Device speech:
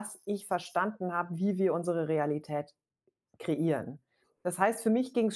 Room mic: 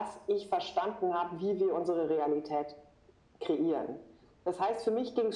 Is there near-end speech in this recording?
No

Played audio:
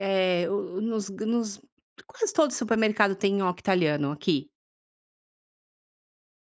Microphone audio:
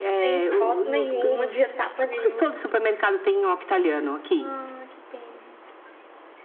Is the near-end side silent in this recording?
No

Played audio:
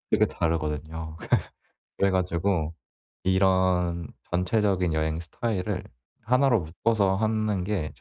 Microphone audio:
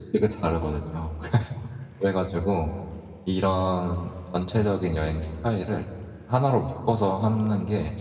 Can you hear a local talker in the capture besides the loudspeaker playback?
No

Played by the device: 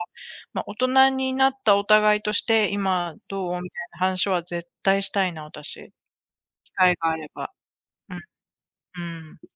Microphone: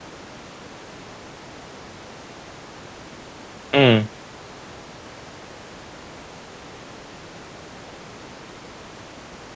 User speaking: Yes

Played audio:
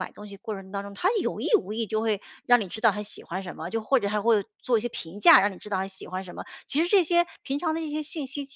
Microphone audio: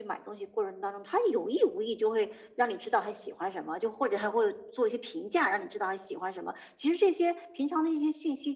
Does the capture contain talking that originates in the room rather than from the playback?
No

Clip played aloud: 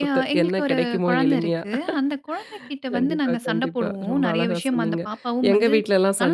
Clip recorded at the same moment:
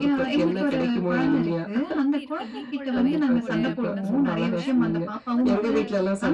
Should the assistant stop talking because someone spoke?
Yes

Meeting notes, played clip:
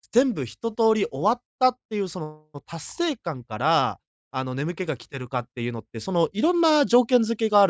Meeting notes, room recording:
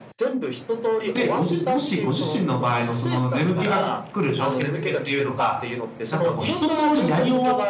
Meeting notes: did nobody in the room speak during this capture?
No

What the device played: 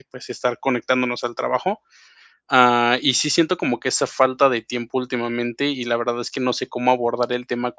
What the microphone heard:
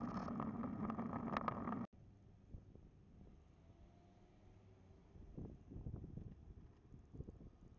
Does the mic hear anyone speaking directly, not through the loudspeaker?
No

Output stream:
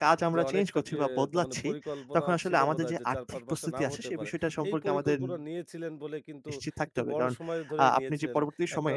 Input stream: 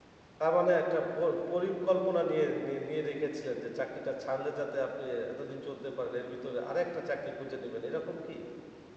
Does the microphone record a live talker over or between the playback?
Yes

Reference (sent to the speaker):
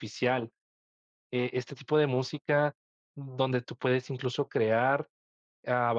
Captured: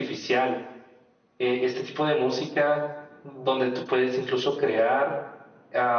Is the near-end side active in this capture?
No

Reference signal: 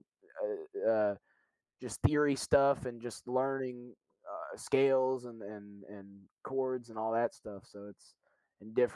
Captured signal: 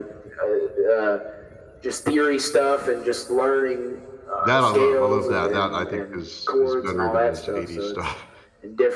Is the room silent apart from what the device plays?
No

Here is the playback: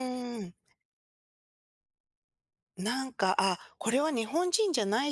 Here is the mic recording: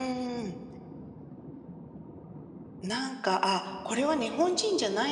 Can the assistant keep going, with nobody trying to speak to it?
Yes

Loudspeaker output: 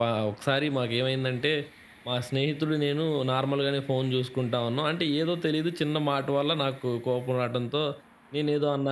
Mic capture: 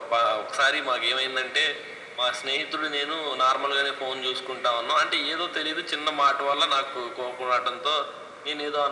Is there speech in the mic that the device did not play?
No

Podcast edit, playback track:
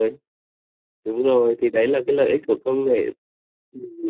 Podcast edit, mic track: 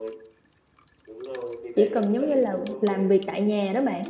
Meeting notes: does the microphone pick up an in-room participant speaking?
Yes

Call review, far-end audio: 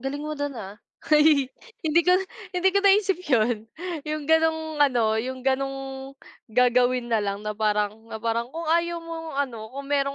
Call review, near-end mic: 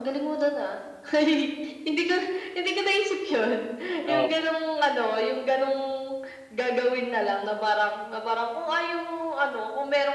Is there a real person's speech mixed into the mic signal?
Yes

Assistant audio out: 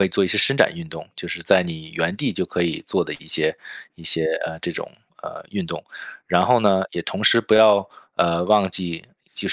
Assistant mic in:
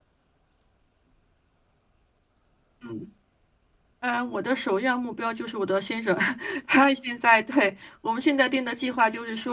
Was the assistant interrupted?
Yes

